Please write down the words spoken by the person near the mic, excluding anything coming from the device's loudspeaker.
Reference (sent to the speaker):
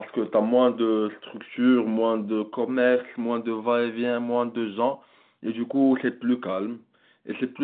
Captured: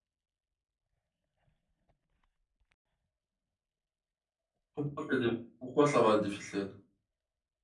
pourquoi c'est diffi- pourquoi ça va être difficile?

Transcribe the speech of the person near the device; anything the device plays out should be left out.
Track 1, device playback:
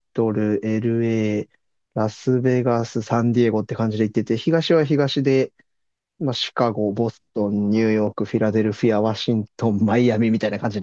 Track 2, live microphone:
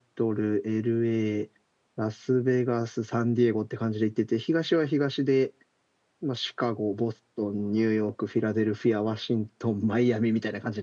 none

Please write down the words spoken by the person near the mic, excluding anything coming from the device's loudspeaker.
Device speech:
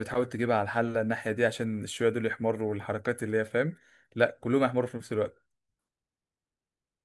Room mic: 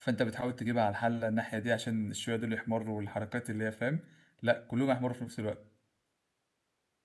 none

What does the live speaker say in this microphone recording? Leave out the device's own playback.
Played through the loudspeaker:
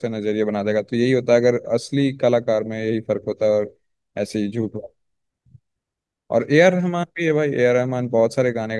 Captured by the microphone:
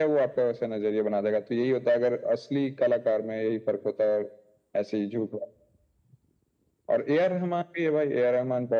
none

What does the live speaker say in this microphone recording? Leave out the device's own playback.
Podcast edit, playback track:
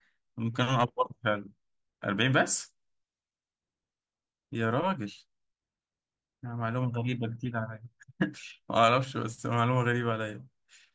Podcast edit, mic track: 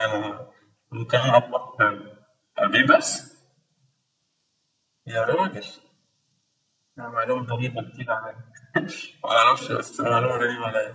none

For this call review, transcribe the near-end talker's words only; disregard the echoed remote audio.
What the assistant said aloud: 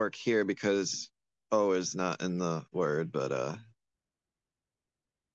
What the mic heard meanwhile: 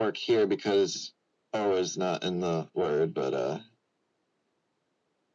none

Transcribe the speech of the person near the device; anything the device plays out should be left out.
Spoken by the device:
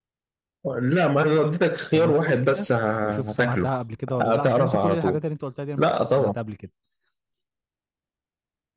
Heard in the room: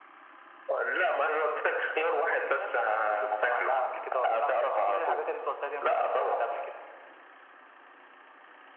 none

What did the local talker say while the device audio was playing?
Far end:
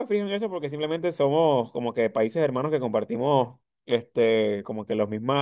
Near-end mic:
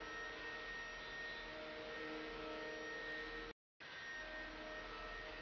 none

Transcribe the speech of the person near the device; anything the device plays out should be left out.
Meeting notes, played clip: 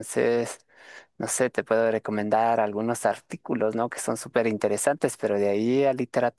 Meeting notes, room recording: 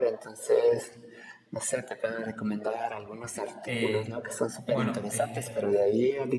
eh, bueno, eh,

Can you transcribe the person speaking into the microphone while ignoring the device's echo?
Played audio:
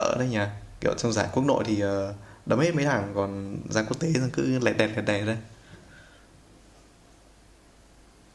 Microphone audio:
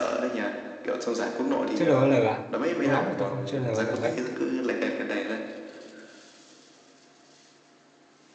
Chơi LOL à? Lâu lắm rồi tôi không chơi LOL ấy.

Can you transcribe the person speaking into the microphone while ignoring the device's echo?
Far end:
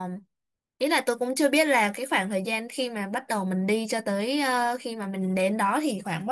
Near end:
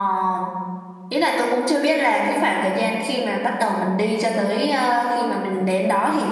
none

